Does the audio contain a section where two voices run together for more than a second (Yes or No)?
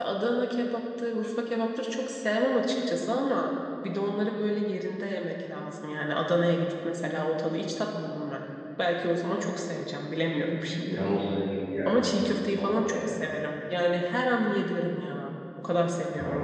Yes